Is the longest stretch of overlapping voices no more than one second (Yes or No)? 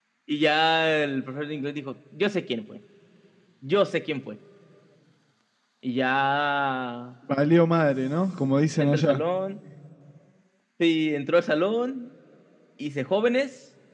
Yes